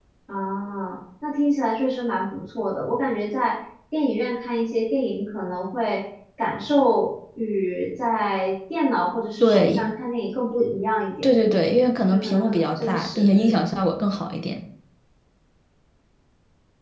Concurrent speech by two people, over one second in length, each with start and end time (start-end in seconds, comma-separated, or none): 12.1-13.6